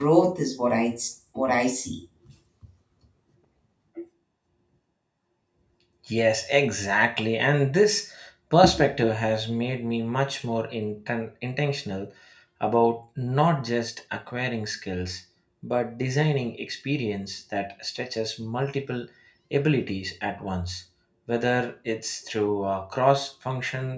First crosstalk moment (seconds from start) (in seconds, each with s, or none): none